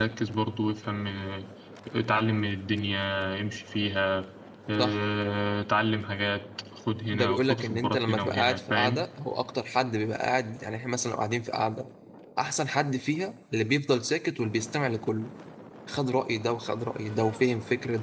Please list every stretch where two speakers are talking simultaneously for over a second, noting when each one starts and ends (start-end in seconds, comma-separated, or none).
7.1-9.0